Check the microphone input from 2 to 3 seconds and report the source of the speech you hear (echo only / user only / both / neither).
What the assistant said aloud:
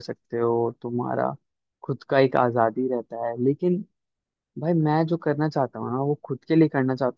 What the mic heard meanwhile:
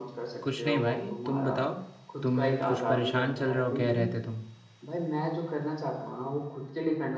both